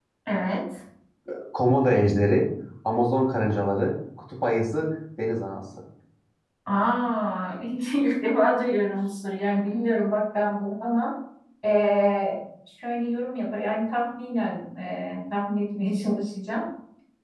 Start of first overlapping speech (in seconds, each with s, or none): none